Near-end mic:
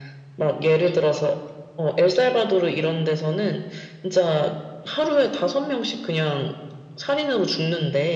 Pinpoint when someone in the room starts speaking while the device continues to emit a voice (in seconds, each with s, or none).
none